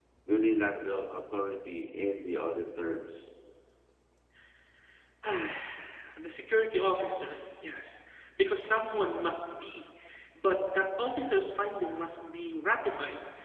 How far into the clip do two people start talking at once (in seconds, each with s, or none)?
none